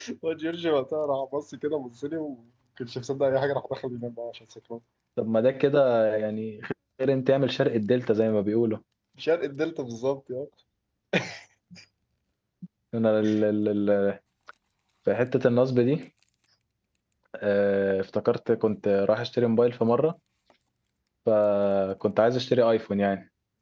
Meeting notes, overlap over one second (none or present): none